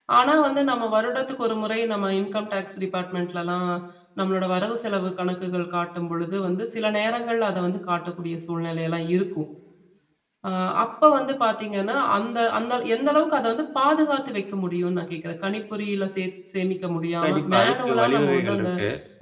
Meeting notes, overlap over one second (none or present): present